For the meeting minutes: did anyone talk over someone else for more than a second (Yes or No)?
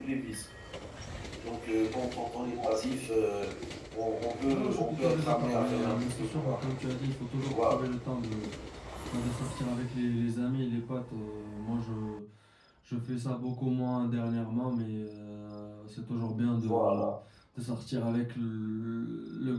Yes